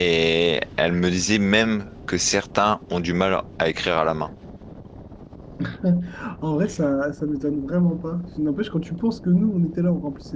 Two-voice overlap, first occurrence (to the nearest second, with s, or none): none